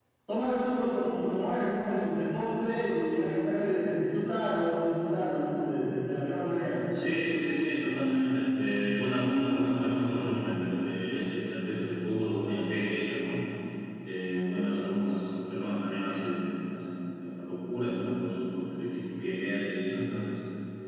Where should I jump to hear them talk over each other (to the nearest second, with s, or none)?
none